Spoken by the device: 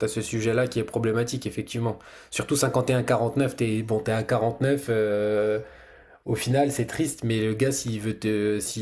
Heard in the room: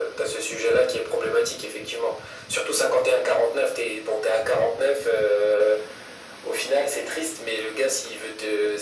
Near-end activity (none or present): none